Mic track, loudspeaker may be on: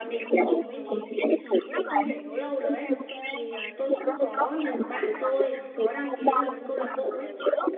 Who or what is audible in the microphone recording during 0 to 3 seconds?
both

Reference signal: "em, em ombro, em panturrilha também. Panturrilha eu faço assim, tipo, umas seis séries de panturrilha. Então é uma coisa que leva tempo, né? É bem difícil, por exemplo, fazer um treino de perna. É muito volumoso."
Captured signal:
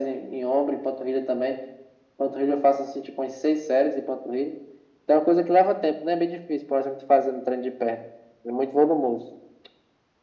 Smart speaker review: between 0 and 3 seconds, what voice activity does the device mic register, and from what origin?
echo only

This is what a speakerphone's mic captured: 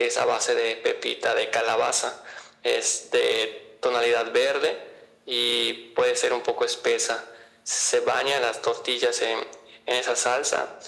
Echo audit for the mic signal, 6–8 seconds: echo only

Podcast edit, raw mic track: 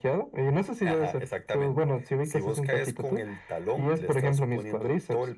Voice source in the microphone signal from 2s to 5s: echo only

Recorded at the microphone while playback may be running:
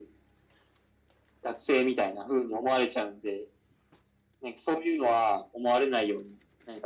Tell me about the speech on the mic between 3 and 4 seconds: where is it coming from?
echo only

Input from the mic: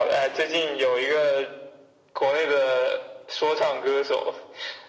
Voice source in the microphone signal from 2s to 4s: echo only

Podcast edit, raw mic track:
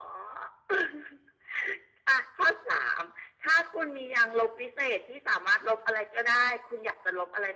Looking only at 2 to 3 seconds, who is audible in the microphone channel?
echo only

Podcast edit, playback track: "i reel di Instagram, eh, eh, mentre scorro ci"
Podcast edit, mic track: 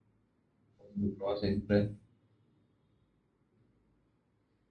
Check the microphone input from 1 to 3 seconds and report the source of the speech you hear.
user only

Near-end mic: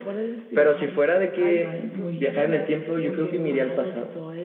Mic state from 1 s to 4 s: both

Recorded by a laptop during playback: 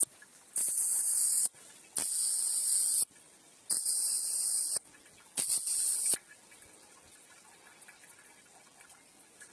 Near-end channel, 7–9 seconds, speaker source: neither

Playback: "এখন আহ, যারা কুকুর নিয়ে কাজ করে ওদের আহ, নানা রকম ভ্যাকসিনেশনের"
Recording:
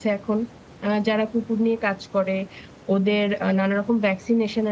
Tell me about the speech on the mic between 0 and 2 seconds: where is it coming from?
echo only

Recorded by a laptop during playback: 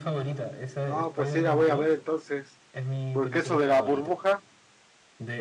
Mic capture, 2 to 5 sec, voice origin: both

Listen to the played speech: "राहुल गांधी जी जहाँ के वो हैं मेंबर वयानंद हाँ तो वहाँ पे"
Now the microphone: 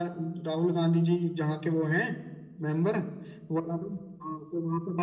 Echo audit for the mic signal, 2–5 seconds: echo only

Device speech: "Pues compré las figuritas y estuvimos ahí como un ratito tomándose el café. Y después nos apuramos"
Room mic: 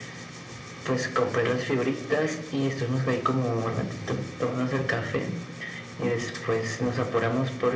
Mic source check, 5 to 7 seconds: echo only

